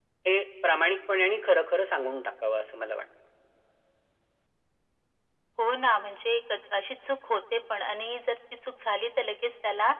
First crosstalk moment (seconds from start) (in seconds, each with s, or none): none